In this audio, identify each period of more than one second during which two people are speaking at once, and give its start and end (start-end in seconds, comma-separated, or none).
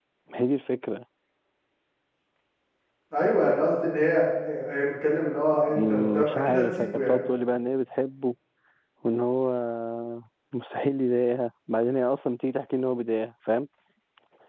5.7-7.2